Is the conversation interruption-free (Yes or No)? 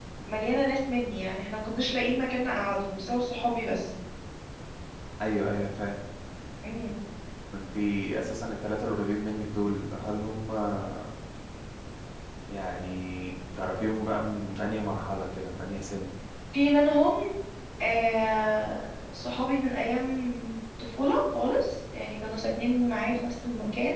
Yes